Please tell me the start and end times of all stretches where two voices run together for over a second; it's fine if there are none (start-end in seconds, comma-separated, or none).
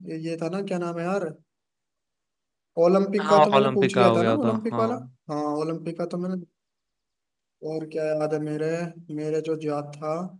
3.2-4.9